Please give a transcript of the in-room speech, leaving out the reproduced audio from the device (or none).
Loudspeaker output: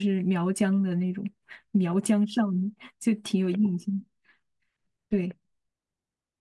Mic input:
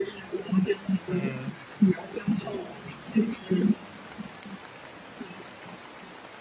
嗯，